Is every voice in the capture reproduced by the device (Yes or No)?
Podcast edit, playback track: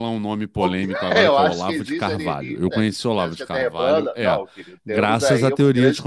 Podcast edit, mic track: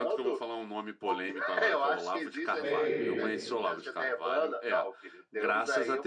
No